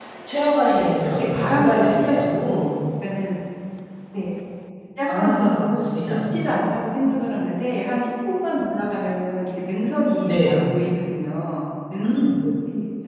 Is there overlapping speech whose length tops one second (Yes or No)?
Yes